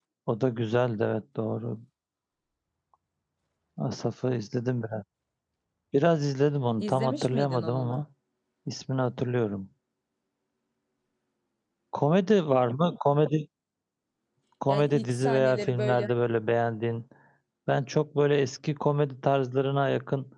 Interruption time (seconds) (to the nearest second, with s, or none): 7 s